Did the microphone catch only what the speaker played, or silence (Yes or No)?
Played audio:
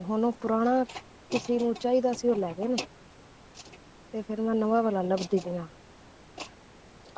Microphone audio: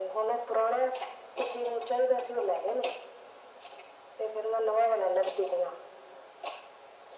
Yes